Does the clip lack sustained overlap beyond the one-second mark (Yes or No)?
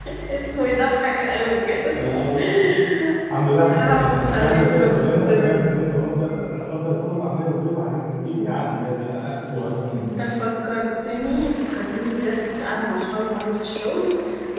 No